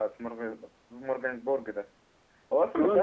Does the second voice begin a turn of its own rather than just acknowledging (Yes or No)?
Yes